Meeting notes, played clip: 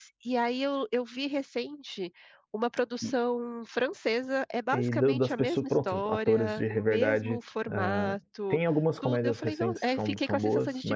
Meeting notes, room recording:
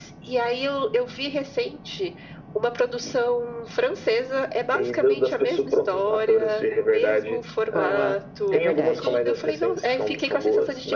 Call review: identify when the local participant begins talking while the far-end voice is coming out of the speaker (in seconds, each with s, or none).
7.7 s